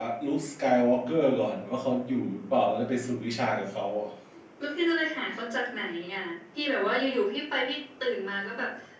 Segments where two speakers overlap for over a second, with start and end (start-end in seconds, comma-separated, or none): none